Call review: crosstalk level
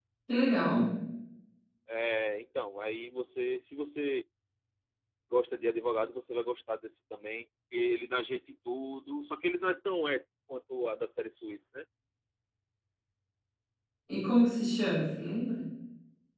none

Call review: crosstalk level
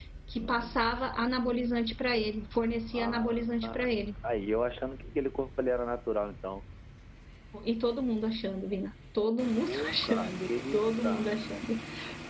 present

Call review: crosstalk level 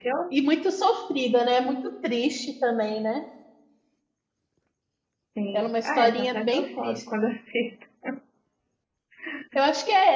present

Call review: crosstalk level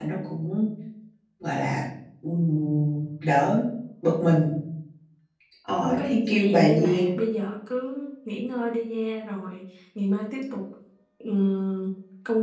present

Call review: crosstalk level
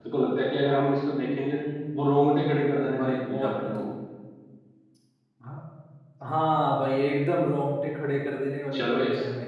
present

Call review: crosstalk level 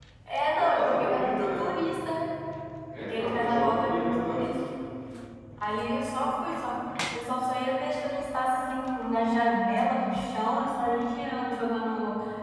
present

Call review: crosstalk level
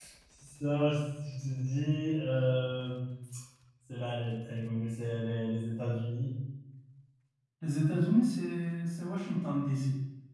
none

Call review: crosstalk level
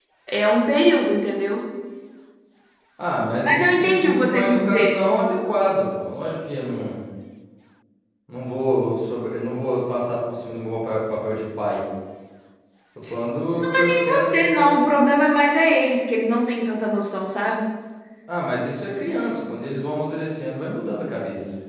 present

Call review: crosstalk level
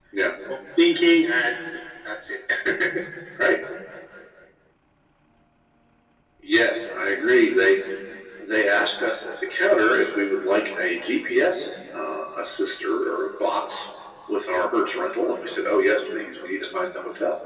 none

